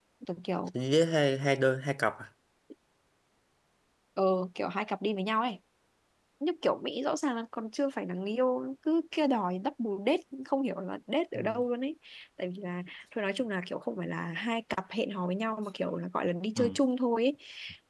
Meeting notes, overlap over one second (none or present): none